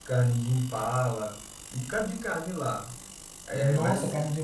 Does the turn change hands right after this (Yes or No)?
Yes